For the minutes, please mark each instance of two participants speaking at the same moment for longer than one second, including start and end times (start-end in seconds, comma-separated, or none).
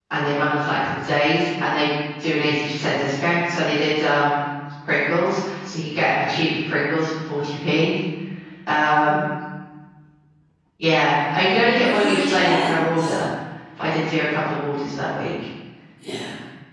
11.8-13.2